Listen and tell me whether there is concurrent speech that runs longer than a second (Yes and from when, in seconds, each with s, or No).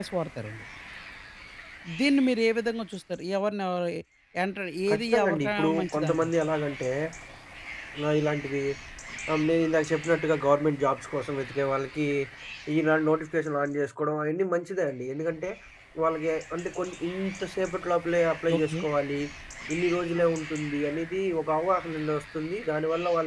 Yes, from 4.9 s